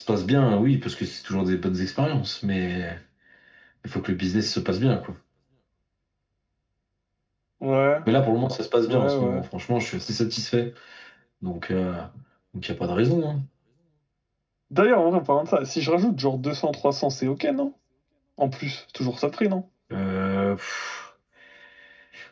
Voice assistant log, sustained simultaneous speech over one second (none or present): none